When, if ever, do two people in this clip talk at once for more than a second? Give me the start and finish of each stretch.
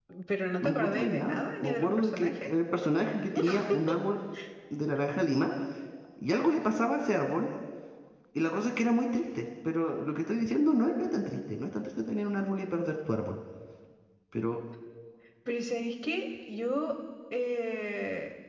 0.6-2.3

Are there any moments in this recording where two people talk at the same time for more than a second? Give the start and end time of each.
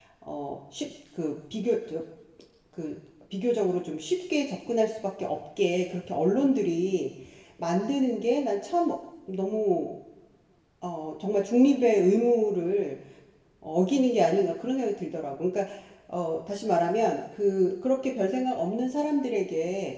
none

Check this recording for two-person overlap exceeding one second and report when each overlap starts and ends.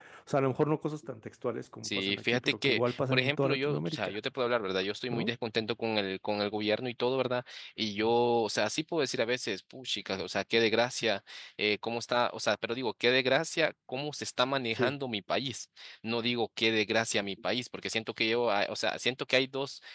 1.8-4.2

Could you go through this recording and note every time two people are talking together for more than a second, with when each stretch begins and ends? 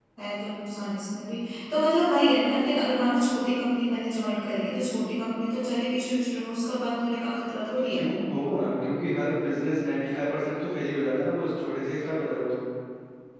none

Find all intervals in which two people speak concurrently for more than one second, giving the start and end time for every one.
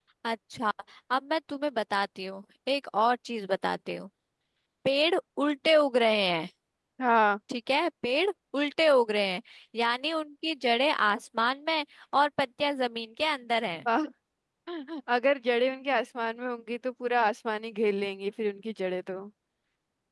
none

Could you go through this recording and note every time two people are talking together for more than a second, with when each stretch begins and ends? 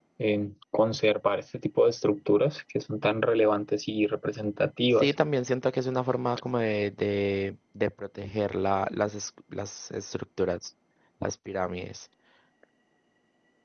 none

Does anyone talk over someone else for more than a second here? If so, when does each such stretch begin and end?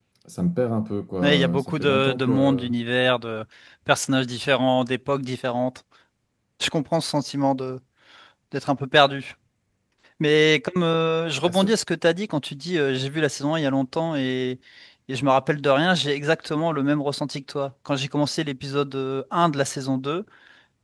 1.2-2.7

